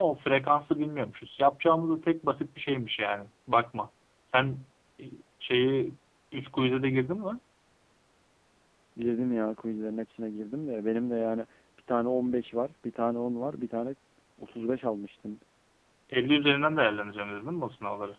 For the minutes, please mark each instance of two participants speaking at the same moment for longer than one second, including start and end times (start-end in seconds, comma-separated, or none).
none